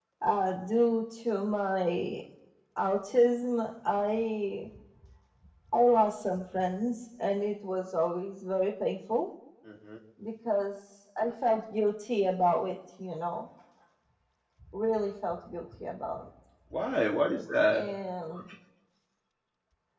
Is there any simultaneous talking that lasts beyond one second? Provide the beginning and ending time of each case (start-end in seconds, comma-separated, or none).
none